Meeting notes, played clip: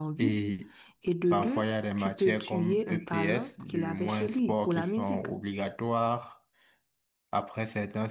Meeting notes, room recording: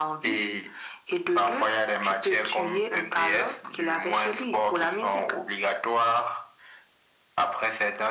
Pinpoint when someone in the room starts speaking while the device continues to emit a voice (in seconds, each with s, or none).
none